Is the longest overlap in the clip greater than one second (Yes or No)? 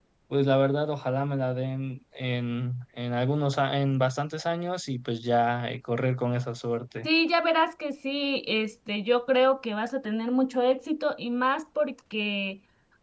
No